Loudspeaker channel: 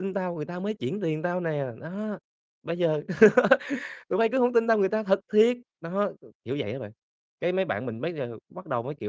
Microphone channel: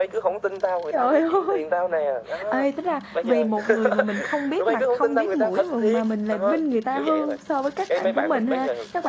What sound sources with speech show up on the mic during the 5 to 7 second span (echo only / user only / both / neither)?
both